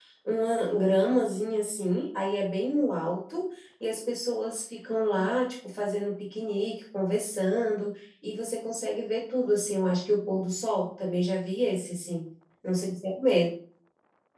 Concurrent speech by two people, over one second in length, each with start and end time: none

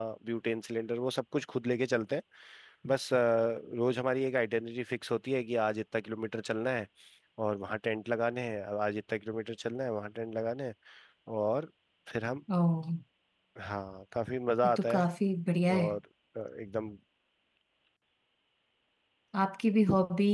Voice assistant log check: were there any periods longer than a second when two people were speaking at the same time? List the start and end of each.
none

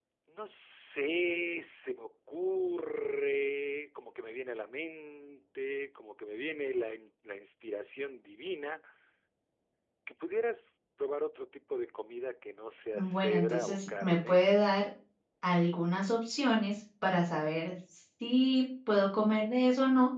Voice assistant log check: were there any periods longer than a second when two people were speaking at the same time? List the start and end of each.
12.9-14.5

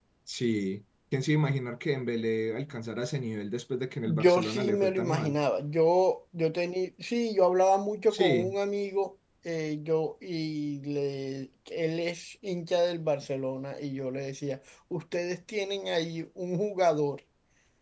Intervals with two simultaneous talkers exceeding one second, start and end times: 4.0-5.4

